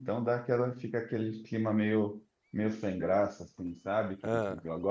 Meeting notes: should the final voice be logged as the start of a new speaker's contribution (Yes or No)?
No